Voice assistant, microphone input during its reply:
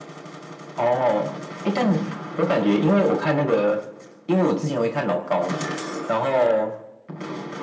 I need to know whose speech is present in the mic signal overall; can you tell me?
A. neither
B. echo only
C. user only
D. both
B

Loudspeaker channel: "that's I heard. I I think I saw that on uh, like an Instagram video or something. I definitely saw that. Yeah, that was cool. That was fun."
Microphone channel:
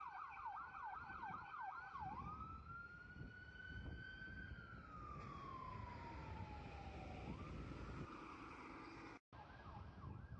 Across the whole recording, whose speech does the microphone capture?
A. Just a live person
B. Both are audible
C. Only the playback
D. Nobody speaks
D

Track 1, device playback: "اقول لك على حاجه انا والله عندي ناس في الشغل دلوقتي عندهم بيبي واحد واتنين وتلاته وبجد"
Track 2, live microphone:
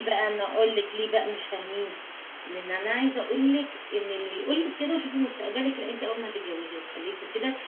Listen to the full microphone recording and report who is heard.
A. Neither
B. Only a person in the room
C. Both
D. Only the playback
B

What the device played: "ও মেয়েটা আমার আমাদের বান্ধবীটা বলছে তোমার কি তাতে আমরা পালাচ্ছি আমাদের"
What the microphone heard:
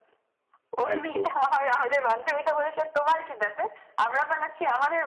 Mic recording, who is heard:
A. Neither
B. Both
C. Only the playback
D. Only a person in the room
B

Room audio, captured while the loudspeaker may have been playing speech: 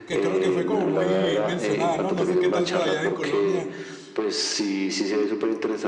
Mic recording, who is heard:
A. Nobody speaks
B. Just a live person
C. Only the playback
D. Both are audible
D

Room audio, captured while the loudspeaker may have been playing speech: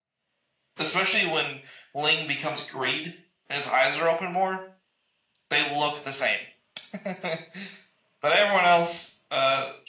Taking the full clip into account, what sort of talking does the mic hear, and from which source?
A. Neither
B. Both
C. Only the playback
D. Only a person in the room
C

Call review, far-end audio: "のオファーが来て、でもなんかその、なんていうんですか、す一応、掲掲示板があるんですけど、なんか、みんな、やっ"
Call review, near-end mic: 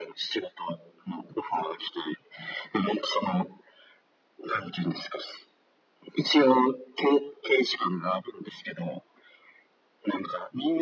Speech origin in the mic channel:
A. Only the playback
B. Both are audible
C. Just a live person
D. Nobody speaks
A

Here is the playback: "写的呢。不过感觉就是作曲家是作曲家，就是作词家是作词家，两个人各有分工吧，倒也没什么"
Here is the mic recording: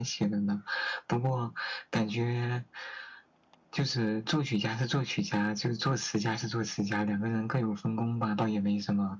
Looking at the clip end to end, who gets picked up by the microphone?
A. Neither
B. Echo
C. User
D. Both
B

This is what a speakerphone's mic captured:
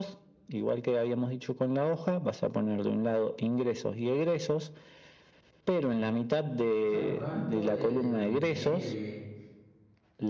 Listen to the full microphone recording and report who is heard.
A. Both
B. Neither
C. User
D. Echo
A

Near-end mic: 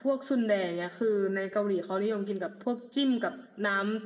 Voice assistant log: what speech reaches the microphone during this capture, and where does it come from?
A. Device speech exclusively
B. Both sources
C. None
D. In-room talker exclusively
A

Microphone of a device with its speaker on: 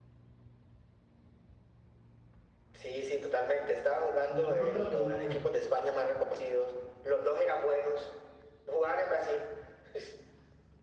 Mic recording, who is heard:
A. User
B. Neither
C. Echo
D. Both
D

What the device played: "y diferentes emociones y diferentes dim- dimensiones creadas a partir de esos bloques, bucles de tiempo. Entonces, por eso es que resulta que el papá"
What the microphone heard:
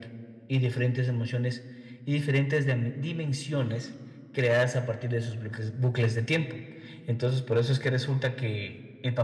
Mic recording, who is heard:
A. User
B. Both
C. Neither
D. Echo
D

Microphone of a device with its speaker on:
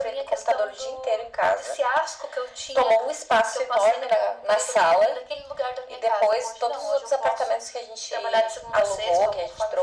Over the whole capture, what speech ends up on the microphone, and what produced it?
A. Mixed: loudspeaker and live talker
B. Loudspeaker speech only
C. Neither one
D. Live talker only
B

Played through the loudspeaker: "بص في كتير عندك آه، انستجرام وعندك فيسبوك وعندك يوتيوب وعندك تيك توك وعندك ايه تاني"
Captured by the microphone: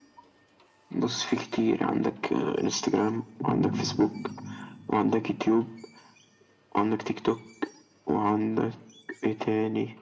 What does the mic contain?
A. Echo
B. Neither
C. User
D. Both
D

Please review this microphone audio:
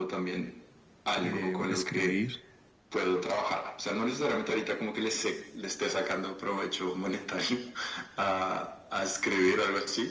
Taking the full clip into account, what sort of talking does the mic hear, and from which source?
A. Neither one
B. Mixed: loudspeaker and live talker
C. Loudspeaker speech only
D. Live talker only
B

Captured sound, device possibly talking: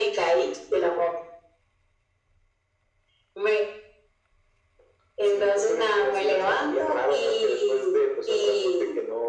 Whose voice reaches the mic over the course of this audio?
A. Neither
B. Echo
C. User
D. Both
B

